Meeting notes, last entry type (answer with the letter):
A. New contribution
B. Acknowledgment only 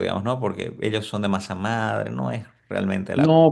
A